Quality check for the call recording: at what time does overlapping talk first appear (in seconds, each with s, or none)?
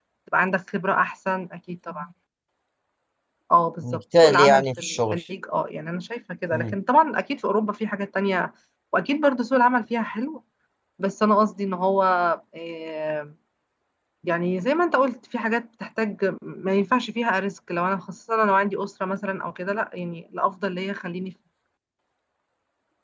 3.8 s